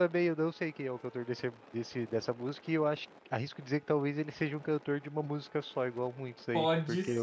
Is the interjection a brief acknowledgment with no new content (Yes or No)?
No